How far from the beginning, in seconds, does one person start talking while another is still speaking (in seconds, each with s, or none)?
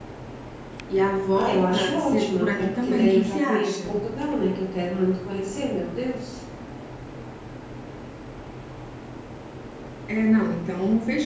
1.3 s